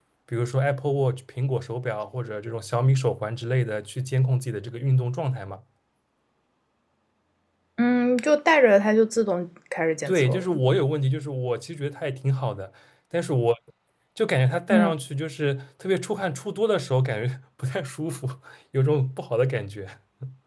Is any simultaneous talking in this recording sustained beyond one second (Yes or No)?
No